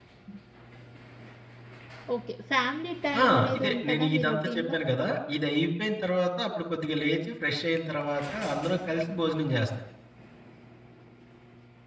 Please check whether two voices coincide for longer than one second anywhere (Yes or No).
Yes